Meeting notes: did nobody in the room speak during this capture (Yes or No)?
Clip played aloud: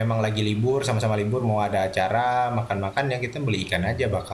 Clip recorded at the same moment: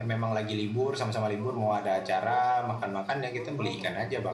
No